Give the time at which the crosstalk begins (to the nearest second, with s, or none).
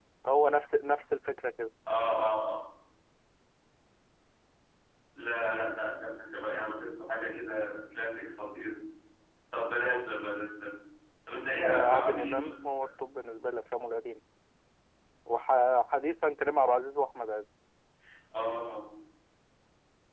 12 s